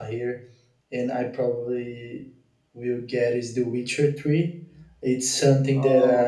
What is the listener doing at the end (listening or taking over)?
listening